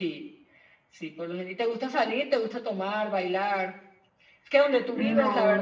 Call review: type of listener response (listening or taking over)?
listening